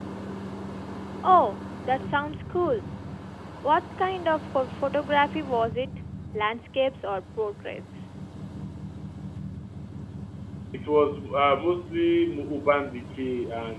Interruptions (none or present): none